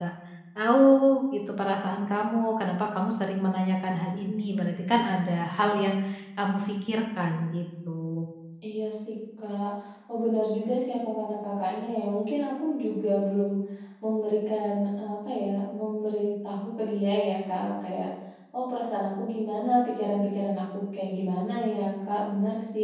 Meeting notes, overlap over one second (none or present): none